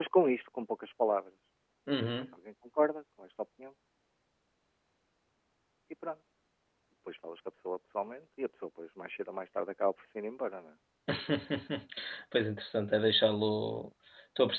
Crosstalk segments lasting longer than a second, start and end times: none

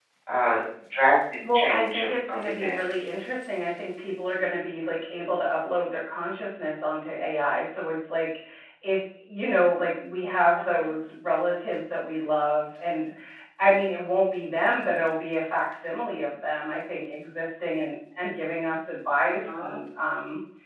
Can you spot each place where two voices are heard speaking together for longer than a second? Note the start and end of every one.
1.5-3.1

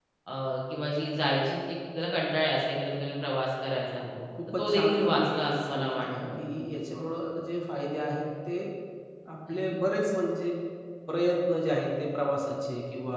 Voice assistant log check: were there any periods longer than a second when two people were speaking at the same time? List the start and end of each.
4.5-6.3

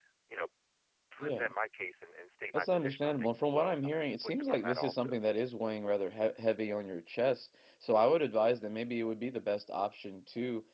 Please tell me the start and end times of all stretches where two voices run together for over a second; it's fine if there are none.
2.5-5.2

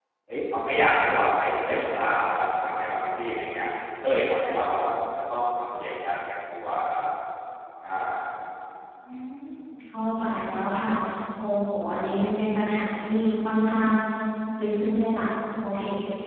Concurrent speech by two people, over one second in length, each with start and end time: none

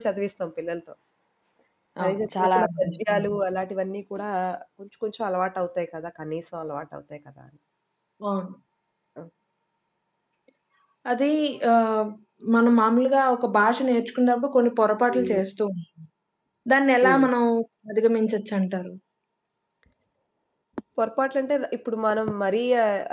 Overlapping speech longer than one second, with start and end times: 2.0-3.4

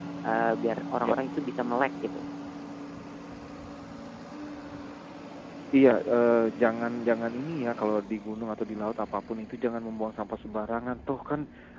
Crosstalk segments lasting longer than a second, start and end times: none

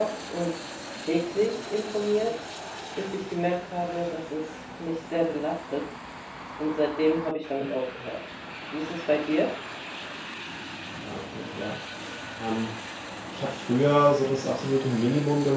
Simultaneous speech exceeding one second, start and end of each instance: none

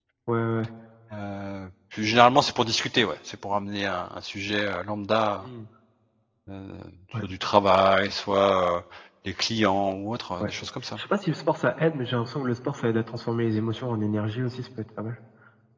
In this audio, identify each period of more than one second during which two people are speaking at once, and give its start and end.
none

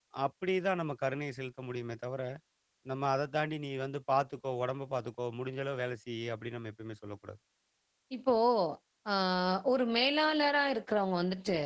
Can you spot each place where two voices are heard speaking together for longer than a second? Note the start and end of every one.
none

